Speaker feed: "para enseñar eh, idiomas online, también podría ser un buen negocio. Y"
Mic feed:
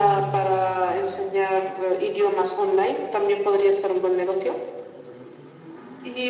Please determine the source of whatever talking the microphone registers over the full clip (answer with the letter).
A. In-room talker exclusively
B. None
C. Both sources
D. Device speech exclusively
D